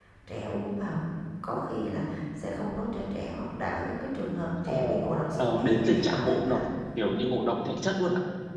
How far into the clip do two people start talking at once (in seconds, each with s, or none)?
4.7 s